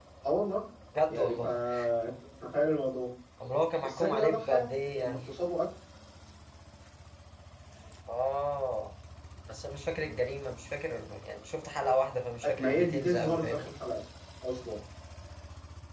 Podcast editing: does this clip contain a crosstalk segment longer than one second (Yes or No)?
Yes